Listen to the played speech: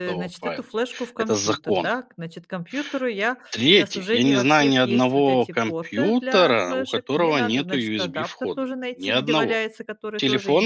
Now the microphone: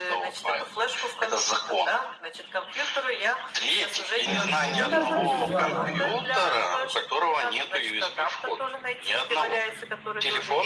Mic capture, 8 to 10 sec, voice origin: echo only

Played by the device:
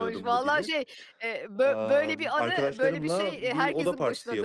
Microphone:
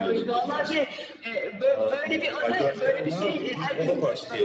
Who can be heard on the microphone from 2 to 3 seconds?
echo only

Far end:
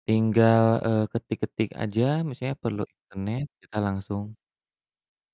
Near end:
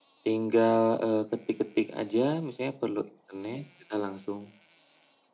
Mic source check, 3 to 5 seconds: echo only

